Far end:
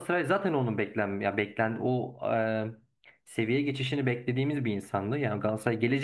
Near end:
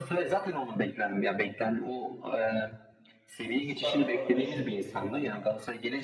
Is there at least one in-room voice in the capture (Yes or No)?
Yes